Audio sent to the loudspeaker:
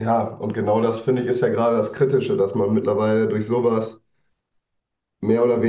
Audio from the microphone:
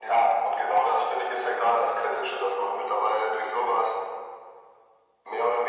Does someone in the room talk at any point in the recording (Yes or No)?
No